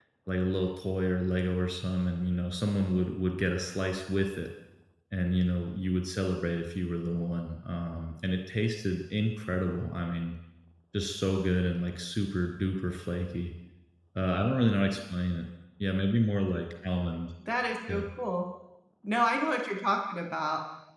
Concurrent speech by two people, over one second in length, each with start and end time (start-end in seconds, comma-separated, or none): none